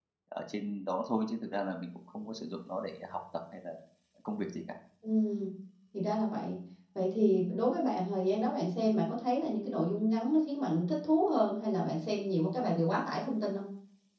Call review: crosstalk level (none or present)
none